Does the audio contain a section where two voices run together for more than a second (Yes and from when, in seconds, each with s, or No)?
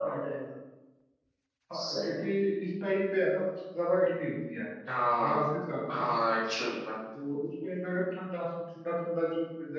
No